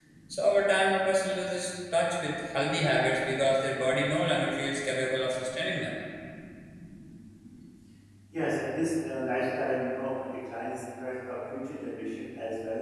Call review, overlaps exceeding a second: none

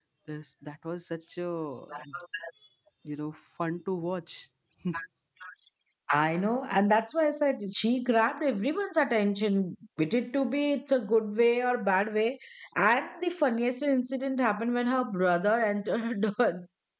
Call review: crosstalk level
none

